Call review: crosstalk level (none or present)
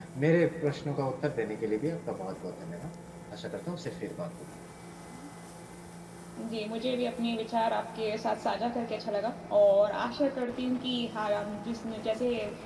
none